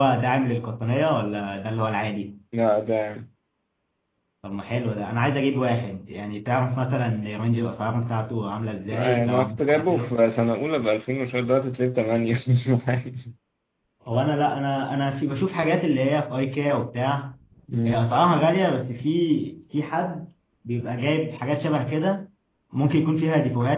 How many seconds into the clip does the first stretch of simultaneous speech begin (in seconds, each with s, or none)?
8.9 s